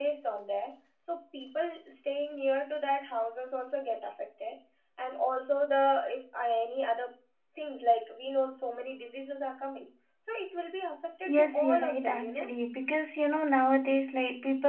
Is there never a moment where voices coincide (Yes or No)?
No